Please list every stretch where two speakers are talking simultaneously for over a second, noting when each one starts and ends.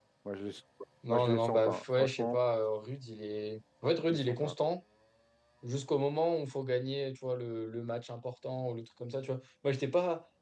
1.1-2.4

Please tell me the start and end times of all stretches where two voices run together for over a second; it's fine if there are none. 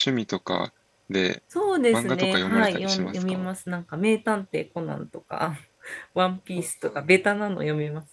1.9-3.4

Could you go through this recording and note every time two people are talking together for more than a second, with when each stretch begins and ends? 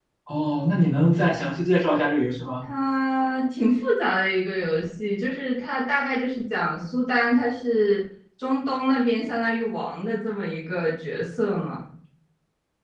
none

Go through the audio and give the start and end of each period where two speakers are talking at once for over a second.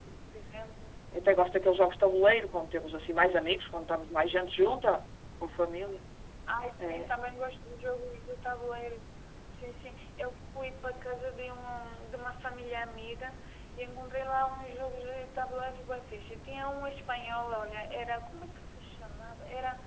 none

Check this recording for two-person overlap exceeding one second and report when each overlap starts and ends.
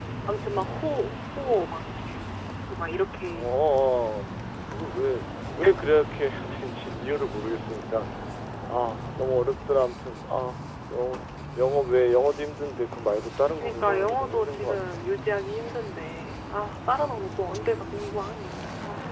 13.6-15.1

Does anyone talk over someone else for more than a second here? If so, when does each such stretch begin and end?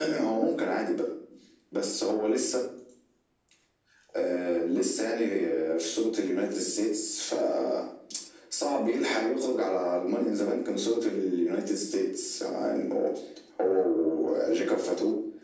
none

